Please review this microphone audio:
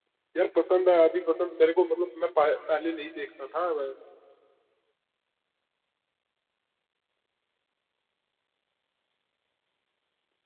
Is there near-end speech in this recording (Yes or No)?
Yes